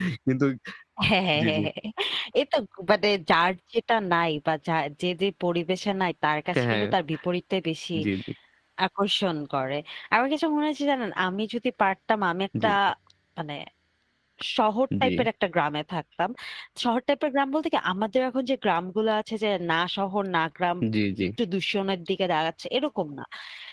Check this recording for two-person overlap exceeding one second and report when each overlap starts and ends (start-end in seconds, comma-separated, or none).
none